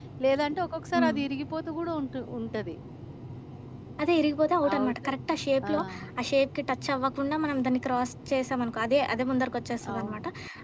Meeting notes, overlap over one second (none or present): none